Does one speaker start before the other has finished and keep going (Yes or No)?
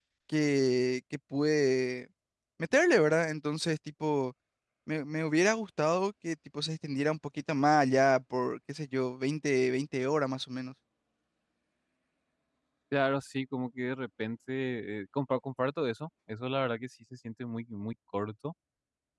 No